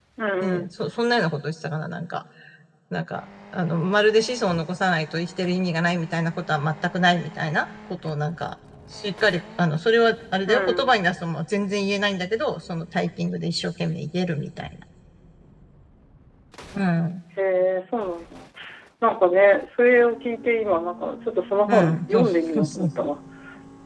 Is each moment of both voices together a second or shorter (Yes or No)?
No